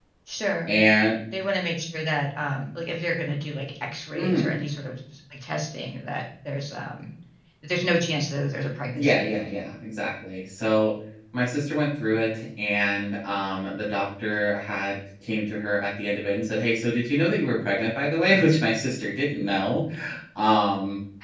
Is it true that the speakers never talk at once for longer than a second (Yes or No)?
Yes